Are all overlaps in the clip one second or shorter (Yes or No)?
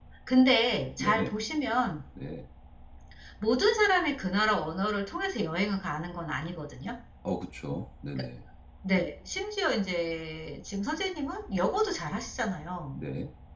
Yes